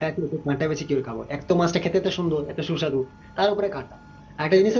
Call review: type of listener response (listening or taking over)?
listening